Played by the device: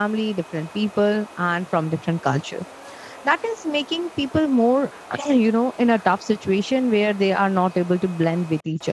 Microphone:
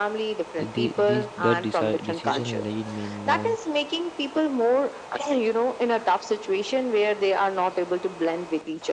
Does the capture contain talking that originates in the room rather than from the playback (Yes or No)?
Yes